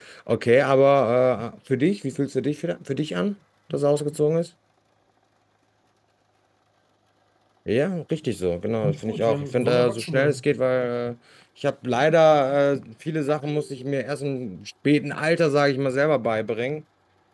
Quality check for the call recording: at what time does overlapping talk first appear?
8.8 s

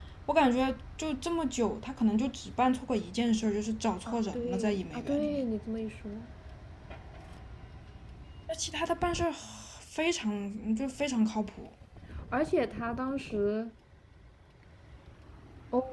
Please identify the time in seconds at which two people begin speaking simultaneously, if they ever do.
4.1 s

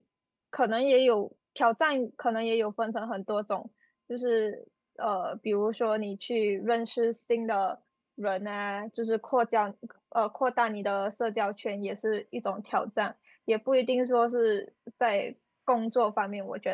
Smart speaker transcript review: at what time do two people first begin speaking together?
none

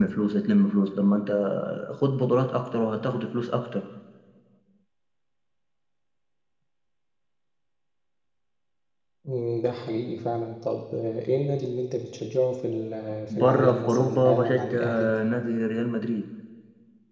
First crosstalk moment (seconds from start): 13.3 s

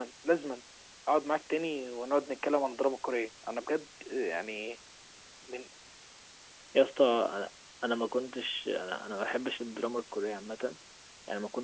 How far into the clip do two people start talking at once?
none

